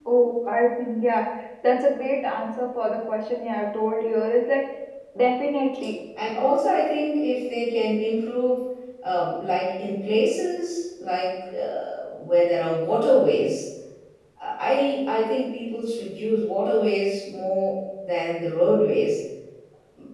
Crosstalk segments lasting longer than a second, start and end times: none

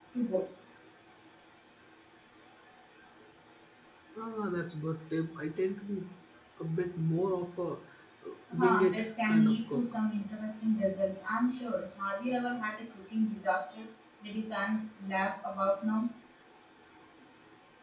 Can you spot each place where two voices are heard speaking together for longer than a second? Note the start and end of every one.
8.5-9.8

